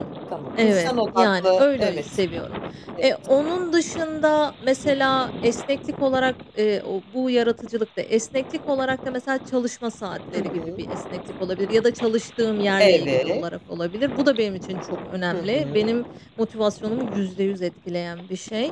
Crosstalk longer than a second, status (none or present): present